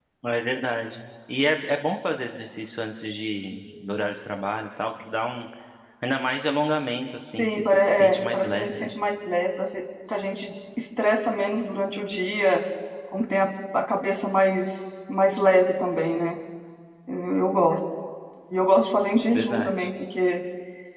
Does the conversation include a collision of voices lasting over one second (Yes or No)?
Yes